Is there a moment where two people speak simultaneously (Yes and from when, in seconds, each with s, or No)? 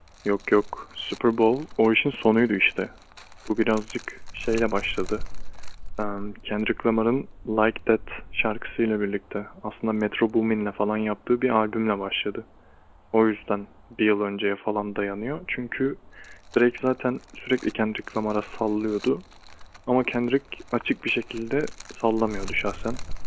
No